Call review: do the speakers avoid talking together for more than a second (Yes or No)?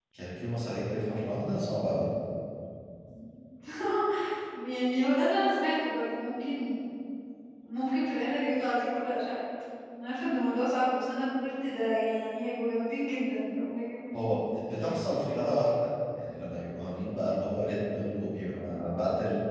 Yes